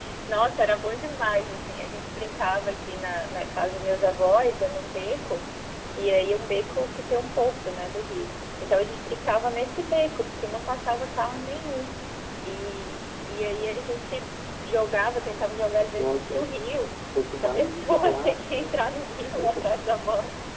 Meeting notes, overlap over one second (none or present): present